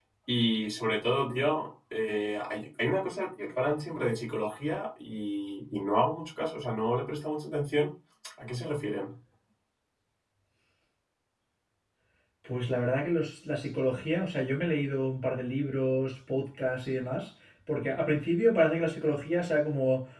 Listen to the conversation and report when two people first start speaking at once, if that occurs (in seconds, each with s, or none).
none